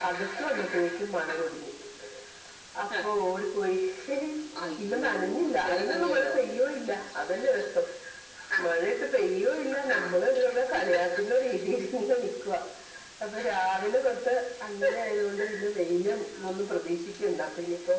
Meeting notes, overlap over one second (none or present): present